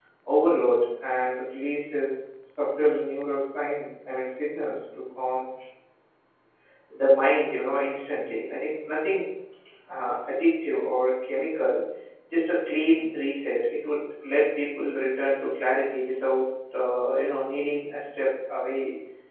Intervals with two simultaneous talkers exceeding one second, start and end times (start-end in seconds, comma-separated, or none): none